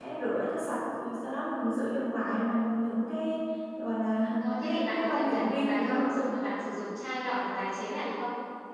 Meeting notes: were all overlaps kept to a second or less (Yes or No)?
No